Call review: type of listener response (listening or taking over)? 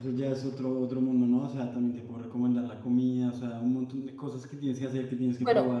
taking over